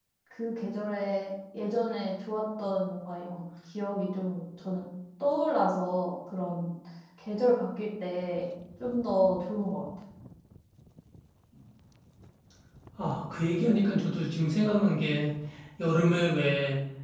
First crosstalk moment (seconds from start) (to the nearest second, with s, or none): none